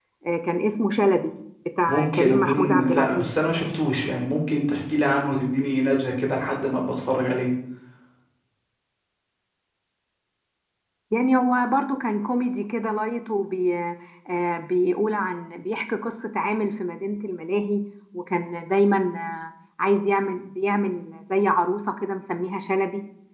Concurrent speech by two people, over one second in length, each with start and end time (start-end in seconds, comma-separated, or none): 1.9-3.3